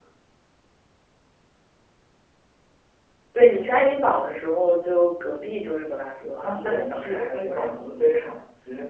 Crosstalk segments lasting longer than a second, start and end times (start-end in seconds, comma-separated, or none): 6.2-8.3